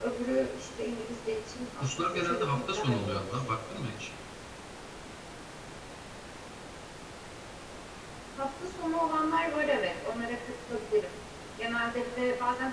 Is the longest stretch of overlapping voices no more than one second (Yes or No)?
No